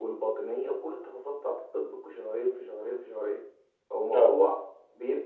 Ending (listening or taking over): listening